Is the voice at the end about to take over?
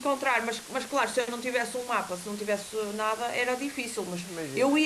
No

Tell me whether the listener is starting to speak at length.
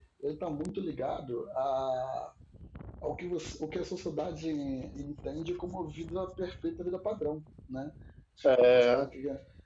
No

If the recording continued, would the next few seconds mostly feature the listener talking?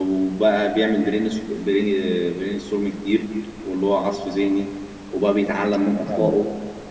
No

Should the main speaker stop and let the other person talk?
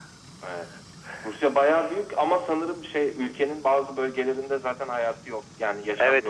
Yes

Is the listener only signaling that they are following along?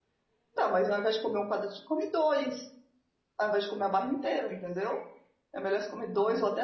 Yes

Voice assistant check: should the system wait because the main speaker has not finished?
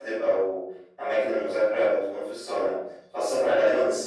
Yes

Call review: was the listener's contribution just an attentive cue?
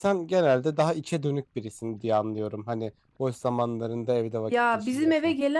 No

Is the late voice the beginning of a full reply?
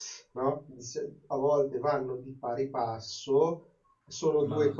No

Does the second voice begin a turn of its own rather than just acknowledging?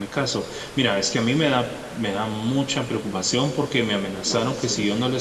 No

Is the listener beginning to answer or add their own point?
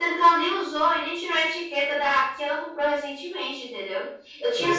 No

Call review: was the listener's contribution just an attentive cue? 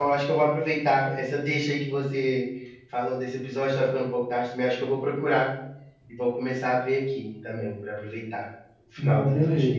No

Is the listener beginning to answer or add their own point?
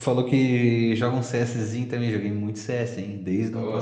Yes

